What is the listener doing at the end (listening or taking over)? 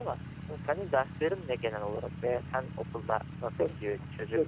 taking over